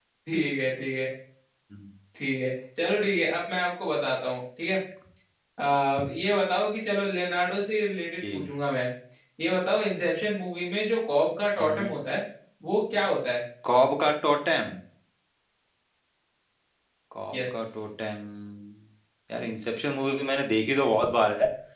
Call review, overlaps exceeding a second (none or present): none